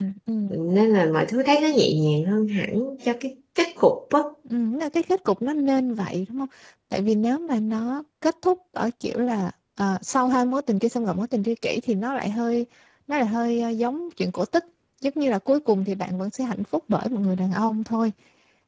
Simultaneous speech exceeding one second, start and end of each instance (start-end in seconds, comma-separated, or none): none